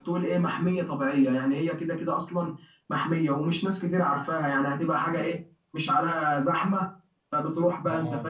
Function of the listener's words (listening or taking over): listening